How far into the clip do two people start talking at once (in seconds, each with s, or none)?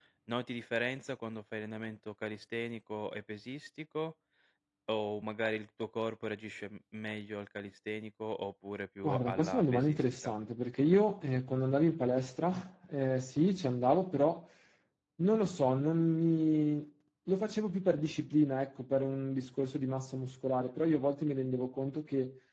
9.0 s